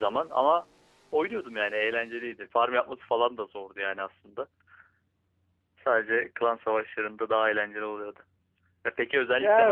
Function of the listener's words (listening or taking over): listening